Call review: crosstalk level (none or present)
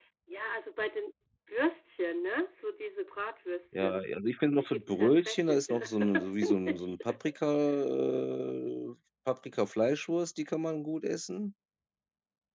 present